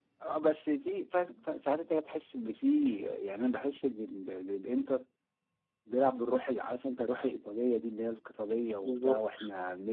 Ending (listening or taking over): listening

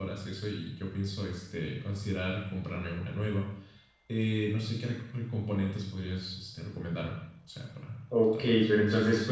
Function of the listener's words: taking over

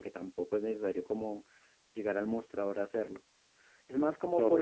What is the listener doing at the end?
taking over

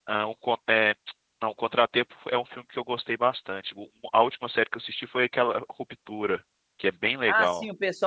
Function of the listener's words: taking over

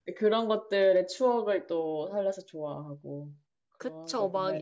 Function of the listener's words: taking over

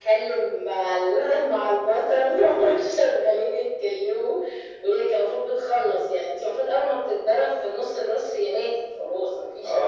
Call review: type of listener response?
taking over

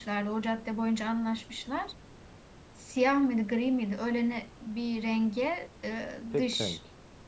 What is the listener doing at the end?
listening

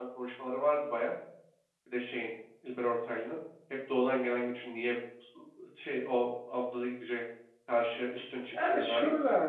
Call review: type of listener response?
taking over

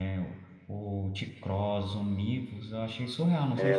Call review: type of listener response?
taking over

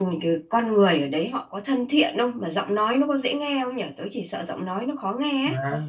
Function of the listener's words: taking over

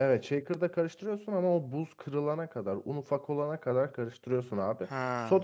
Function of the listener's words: listening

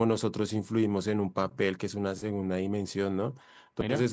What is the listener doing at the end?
listening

